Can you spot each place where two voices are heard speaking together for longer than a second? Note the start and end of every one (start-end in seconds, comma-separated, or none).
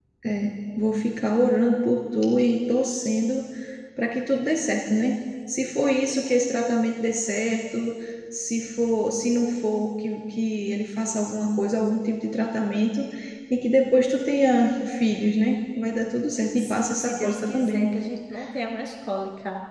16.6-17.9